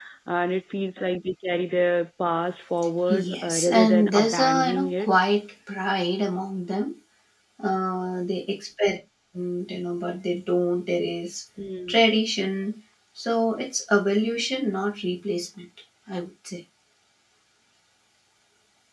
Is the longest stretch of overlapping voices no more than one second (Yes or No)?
No